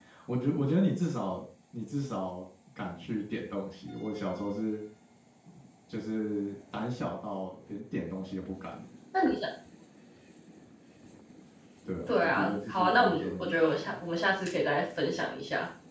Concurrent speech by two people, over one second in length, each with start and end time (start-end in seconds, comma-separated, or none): 12.1-13.8